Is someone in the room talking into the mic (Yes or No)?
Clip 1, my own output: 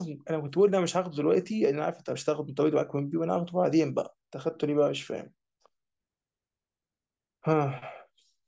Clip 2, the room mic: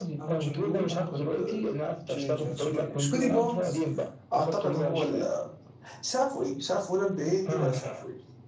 Yes